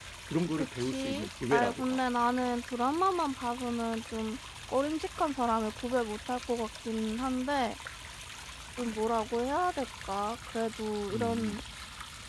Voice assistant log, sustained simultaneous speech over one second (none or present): present